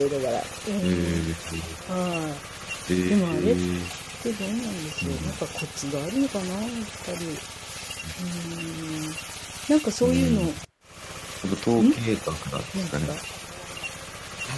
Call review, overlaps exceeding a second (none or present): none